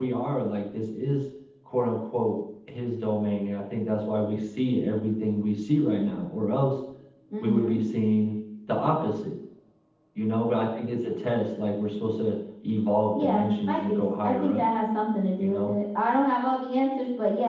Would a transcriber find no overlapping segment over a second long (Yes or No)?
No